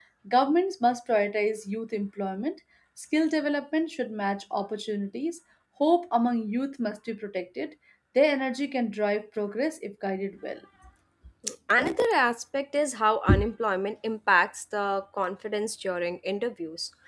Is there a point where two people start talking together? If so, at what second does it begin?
none

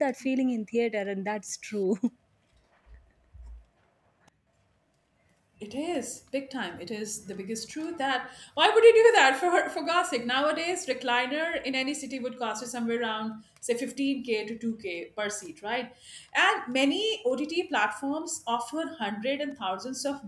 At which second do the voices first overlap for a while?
none

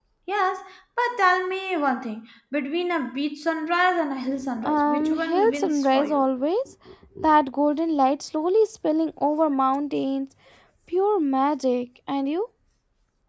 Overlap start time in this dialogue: 4.6 s

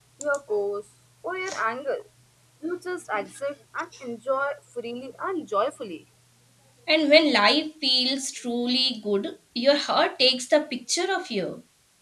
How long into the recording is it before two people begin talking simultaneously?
none

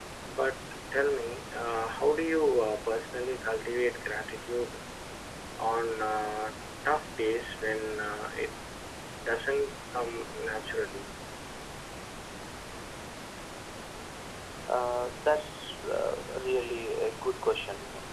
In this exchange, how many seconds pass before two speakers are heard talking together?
none

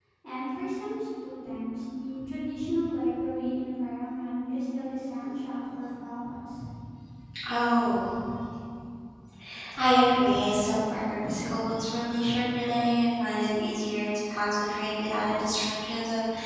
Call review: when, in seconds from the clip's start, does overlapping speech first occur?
none

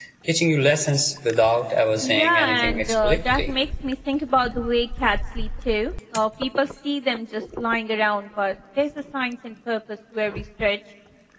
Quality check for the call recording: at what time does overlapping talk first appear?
2.0 s

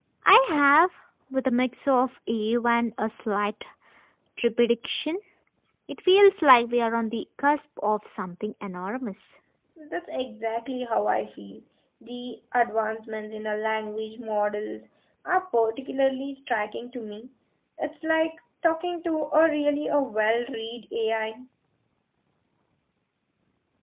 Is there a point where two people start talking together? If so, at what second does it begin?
none

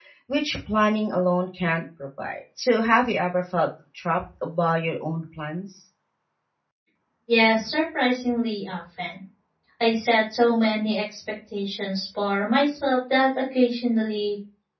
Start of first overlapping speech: none

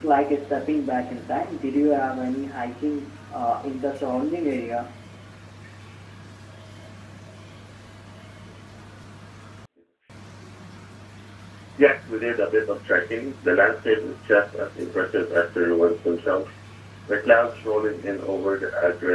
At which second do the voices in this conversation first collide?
none

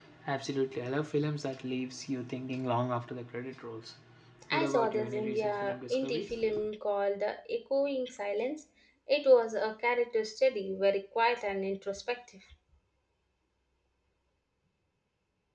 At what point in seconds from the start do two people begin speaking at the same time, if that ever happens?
4.5 s

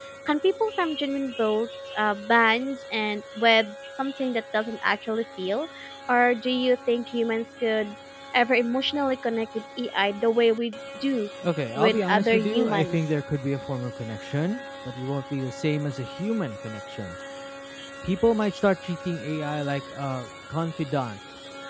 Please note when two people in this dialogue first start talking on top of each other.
11.8 s

